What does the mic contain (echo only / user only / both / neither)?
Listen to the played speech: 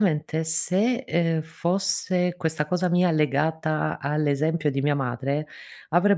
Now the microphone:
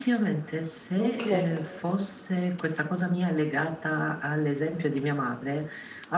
both